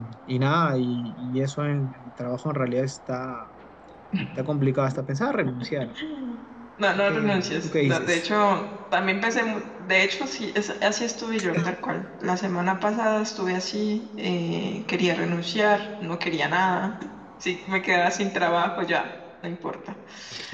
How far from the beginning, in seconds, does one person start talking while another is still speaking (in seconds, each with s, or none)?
7.0 s